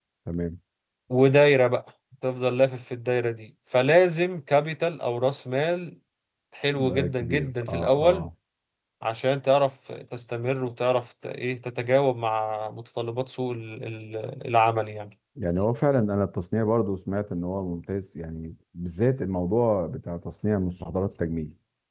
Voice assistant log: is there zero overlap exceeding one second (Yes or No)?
No